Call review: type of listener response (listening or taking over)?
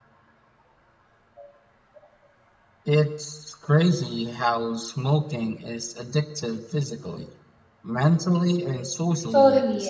taking over